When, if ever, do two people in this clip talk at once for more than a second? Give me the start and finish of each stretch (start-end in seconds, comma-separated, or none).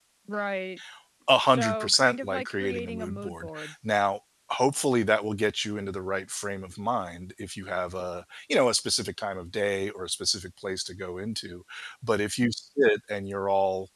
1.5-3.7